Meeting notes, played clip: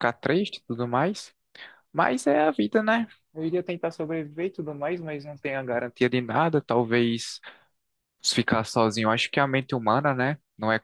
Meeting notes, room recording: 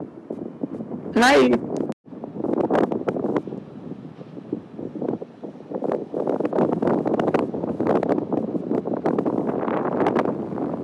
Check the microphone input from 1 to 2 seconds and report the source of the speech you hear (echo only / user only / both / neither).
user only